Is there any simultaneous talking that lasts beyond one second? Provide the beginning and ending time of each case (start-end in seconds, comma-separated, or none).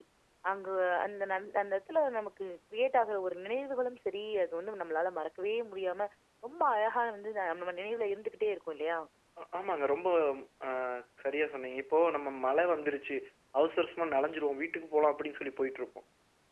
none